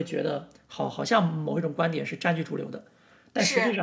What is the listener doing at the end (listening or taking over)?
listening